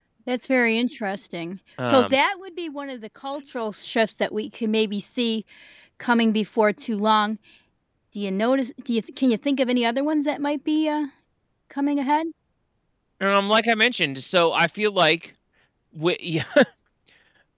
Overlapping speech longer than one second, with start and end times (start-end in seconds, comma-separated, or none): none